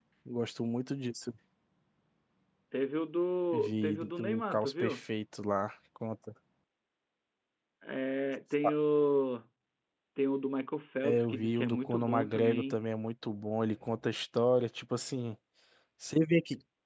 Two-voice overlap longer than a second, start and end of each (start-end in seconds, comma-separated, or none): 3.5-5.0, 11.0-12.8